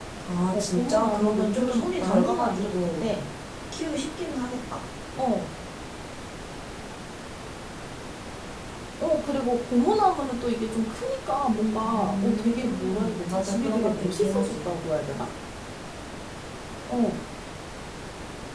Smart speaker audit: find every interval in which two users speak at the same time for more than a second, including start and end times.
0.5-3.0, 11.8-14.8

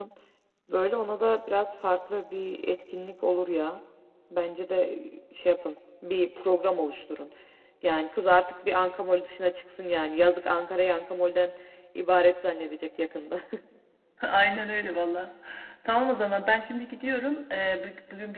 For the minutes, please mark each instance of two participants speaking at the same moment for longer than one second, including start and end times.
none

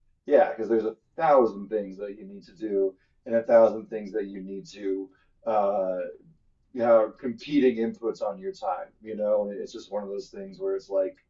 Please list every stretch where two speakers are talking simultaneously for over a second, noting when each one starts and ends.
none

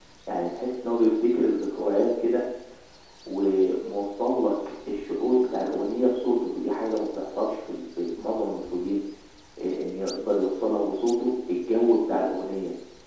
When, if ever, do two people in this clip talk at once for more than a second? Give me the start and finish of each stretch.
none

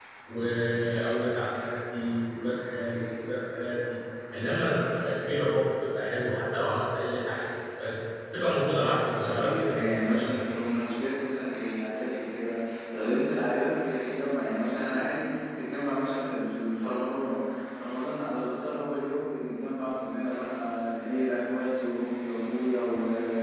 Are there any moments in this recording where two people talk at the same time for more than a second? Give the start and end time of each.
9.2-10.5

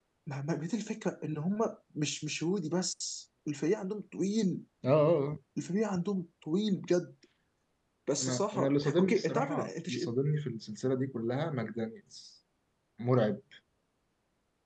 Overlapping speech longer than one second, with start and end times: 8.2-10.0

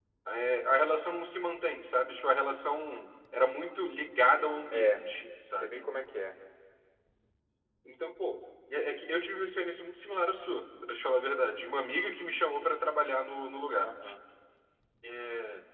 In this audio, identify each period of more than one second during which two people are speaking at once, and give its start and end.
none

